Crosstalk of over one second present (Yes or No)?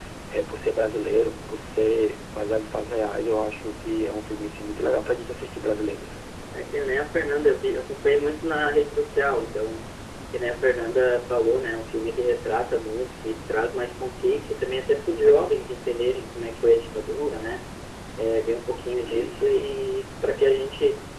No